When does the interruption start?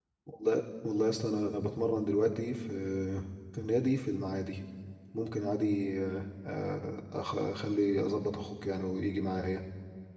none

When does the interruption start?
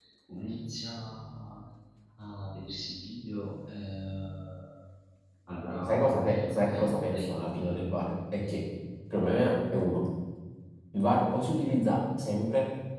5.9 s

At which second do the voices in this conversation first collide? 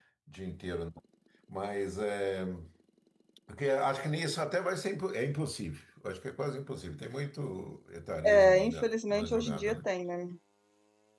8.2 s

